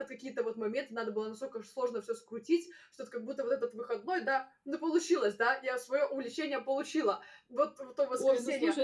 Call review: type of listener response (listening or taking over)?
taking over